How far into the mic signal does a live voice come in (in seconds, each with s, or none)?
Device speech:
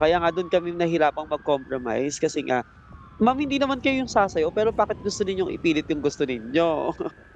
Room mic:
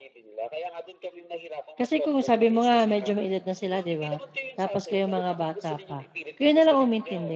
1.7 s